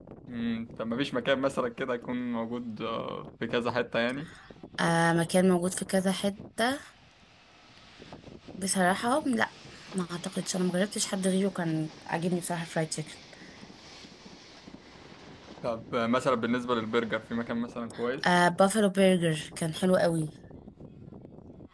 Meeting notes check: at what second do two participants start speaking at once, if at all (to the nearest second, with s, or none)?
none